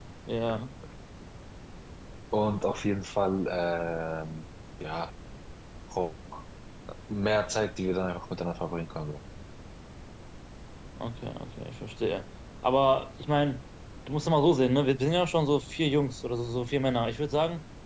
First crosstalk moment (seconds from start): none

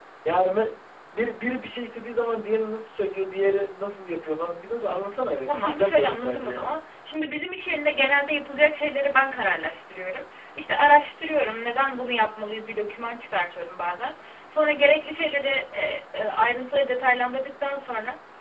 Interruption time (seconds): 5.5 s

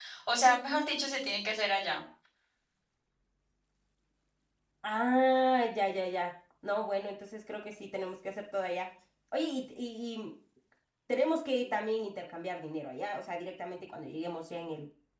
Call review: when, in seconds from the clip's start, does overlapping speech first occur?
none

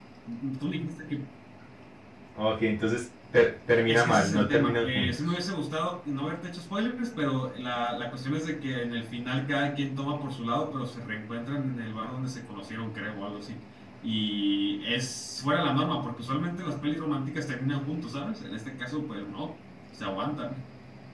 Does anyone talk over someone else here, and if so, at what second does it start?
3.9 s

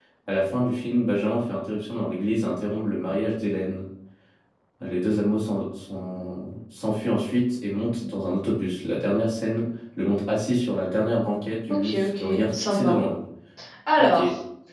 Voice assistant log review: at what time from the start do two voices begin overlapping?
11.7 s

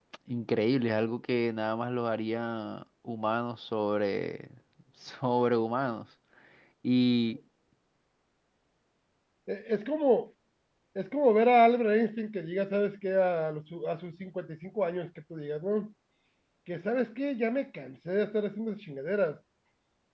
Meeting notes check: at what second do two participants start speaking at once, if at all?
none

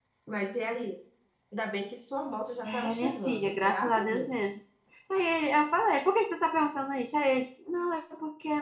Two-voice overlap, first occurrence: 2.6 s

